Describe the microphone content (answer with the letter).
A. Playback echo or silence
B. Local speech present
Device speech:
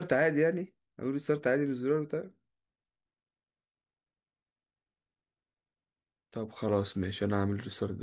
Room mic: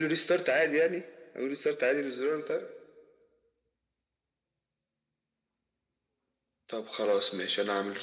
A